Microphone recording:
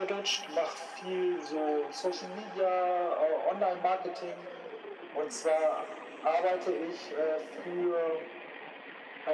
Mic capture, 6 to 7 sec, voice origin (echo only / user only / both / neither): echo only